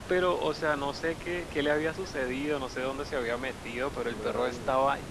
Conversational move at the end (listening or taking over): listening